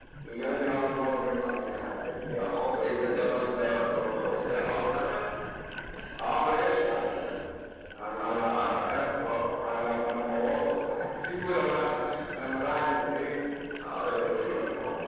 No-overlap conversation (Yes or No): No